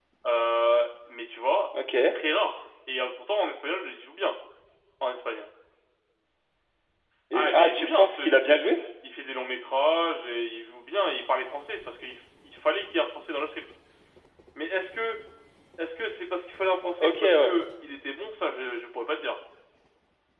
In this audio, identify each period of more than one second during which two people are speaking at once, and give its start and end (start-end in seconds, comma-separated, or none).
7.3-8.8